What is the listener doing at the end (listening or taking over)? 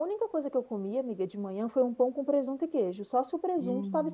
taking over